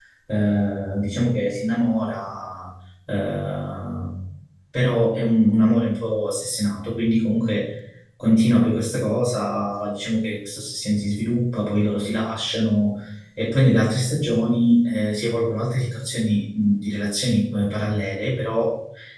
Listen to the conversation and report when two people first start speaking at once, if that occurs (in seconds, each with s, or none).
none